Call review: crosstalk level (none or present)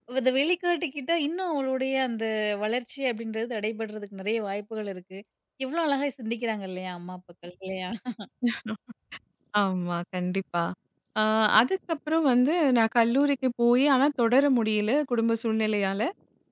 none